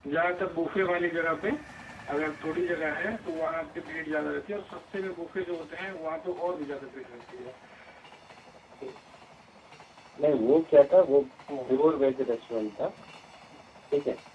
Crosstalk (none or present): none